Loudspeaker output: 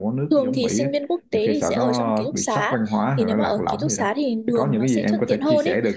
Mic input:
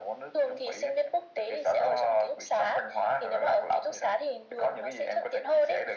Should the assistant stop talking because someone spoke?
No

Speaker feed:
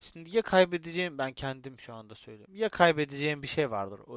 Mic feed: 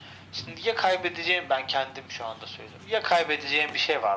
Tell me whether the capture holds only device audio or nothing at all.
Yes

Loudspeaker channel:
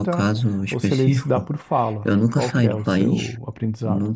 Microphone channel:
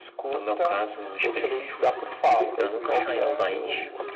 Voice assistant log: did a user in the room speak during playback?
Yes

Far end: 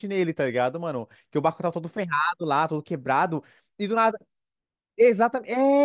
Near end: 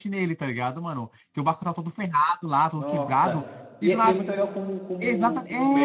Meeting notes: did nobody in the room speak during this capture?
No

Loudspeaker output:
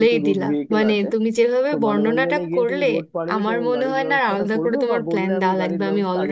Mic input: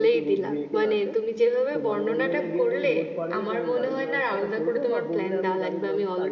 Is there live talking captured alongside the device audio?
No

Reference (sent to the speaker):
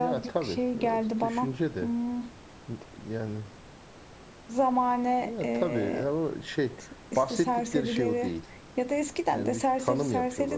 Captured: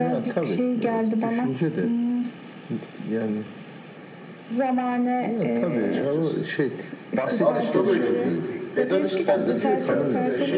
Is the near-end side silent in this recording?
No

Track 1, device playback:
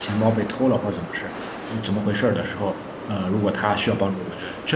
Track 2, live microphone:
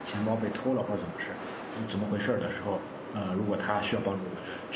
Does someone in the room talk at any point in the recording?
No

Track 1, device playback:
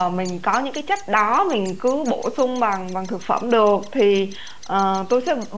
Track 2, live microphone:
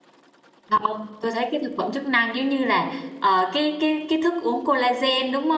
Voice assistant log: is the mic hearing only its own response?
No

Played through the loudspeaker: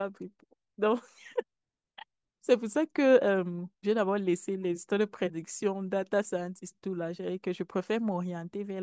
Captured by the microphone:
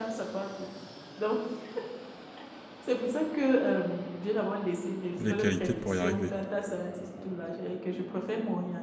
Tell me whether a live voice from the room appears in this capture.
Yes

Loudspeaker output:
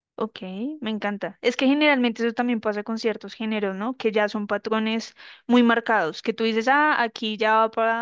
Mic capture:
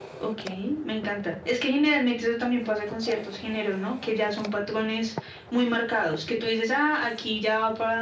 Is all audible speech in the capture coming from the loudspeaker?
Yes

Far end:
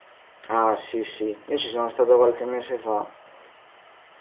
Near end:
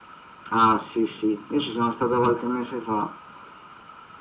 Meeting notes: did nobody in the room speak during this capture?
Yes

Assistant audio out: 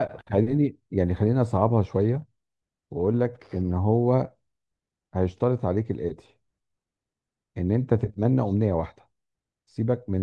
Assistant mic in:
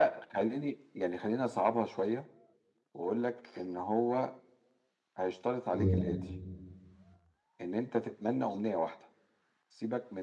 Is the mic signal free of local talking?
No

